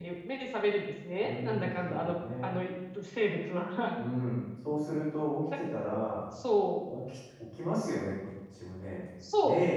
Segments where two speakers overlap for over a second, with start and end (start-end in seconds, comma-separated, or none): 1.2-2.5